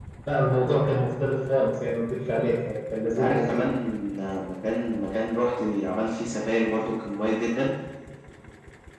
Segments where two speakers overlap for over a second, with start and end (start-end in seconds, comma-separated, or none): none